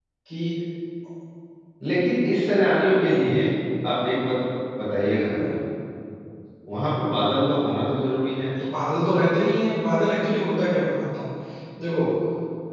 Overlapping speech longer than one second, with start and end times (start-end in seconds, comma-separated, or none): none